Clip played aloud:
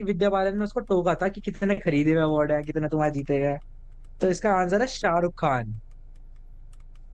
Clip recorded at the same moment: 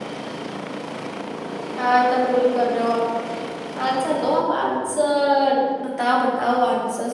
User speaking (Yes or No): Yes